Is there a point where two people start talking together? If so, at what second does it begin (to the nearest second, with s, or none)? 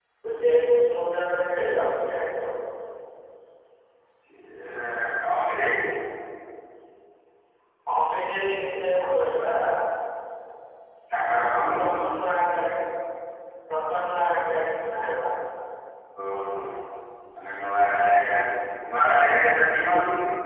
none